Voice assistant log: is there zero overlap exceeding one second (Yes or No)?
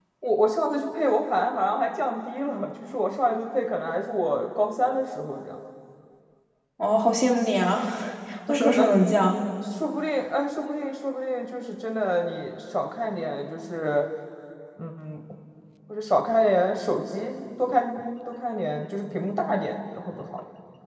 Yes